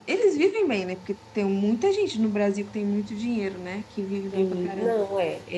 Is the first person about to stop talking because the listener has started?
Yes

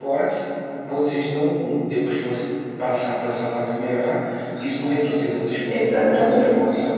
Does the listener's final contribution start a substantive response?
Yes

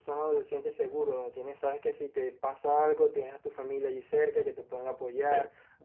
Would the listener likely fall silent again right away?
Yes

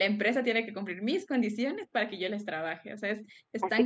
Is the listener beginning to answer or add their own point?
Yes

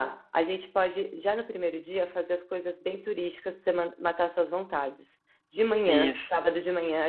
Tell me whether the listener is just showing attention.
Yes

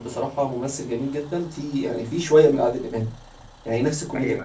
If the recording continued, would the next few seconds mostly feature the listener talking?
No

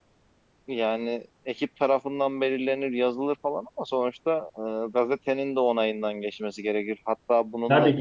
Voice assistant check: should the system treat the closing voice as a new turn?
No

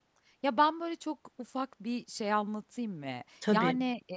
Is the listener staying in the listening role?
Yes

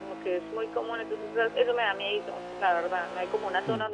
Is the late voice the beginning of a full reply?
No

